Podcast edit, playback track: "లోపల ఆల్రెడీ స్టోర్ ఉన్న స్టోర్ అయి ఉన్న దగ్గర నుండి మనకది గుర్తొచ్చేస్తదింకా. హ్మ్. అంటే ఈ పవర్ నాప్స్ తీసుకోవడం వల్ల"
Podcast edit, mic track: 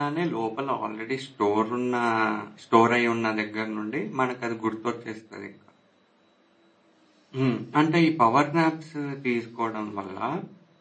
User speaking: No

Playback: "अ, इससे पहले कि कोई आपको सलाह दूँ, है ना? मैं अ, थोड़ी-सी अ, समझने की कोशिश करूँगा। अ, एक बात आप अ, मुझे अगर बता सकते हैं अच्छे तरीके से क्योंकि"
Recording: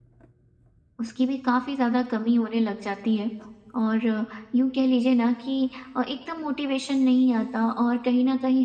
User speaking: Yes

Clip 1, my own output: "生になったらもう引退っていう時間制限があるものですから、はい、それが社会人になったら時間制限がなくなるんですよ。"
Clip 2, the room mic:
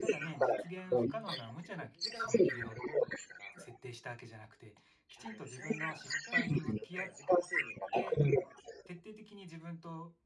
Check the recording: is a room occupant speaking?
Yes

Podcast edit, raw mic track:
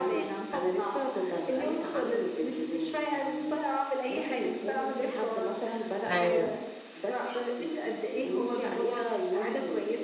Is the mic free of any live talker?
No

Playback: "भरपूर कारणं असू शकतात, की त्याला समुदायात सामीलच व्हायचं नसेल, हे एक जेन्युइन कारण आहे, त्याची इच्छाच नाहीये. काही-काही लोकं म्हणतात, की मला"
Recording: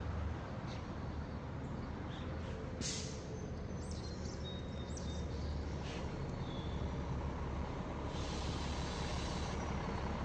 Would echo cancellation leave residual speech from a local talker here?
No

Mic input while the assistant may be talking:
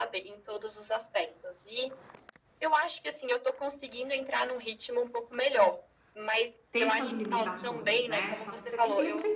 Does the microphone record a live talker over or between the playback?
Yes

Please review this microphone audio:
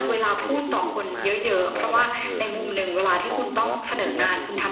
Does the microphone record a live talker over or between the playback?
Yes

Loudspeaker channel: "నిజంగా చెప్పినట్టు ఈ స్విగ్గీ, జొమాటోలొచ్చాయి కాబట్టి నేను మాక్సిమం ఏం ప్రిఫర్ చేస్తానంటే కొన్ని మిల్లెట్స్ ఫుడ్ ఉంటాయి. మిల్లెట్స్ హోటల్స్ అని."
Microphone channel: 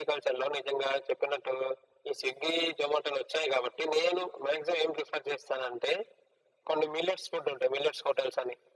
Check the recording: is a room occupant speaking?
No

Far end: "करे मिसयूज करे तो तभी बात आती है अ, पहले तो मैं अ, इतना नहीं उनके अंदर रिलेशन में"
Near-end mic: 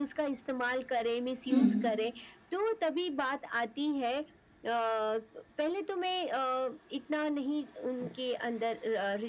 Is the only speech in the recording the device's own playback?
No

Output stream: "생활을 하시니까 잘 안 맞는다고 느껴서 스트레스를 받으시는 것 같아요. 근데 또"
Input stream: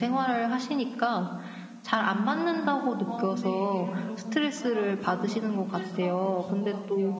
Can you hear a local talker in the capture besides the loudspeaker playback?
Yes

